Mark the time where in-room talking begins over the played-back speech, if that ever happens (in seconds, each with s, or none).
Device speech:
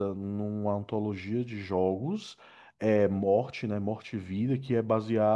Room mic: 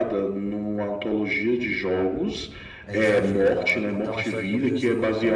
2.9 s